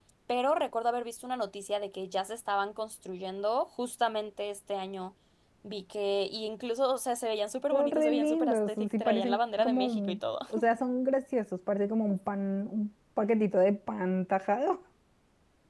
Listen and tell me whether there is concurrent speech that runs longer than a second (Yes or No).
Yes